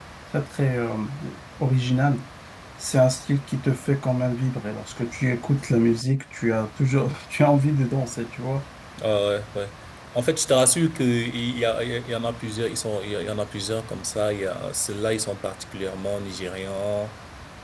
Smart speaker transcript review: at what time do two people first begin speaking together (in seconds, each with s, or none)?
none